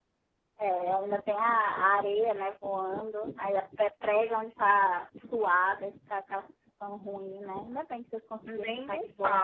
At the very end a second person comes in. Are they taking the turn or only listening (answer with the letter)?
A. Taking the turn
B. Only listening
A